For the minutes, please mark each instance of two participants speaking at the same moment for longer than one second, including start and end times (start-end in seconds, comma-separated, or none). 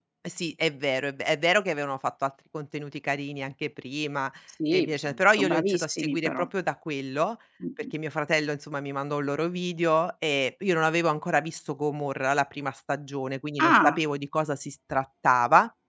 4.7-6.5